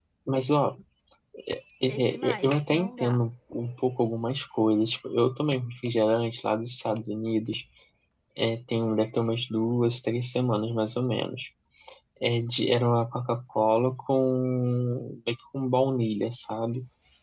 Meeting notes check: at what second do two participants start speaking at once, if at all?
1.9 s

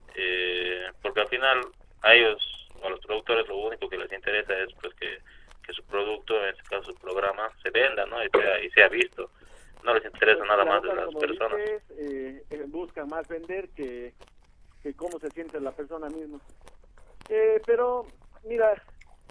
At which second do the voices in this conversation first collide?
10.3 s

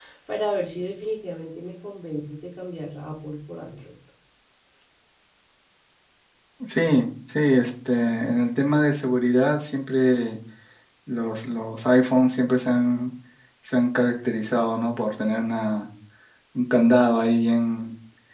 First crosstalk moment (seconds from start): none

